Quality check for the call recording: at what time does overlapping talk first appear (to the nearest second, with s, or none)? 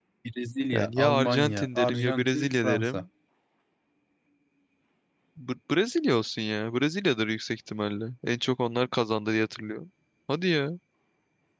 1 s